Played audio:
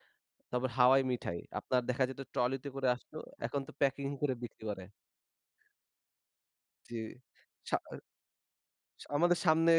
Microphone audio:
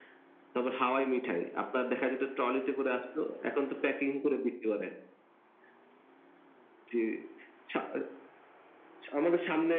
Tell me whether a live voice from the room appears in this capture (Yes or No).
No